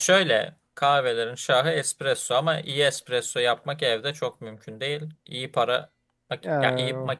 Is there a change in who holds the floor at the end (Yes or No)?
No